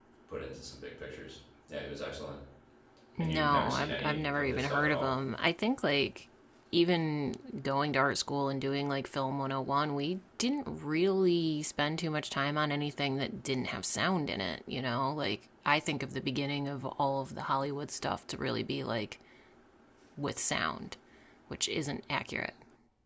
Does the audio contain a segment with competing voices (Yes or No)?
Yes